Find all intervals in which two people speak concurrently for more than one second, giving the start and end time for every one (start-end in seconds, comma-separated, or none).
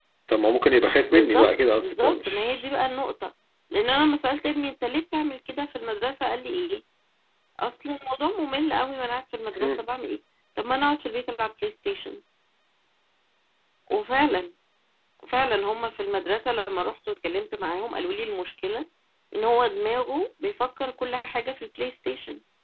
1.1-2.5